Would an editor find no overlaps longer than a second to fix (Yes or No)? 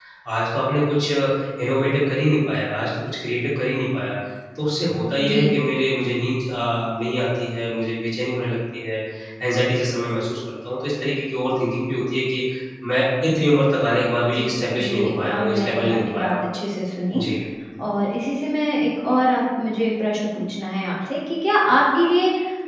No